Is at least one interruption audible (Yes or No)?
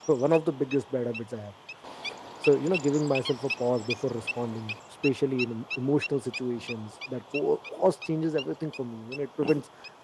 No